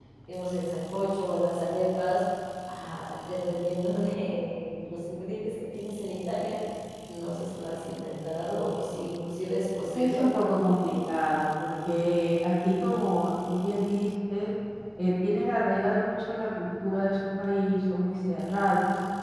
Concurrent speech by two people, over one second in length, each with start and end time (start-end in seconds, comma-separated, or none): none